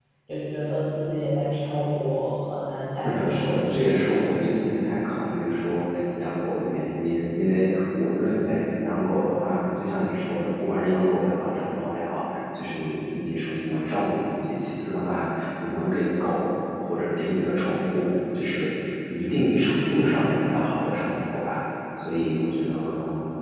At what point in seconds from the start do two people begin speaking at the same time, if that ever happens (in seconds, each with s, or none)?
3.0 s